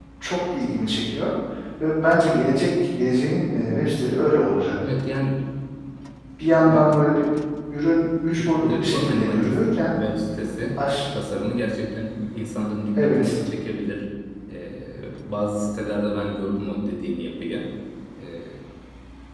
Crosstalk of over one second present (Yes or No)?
Yes